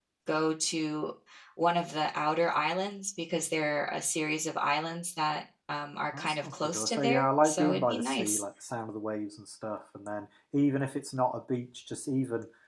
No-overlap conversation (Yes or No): No